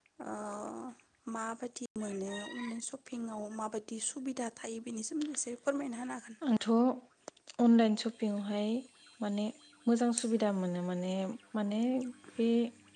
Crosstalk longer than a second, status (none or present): none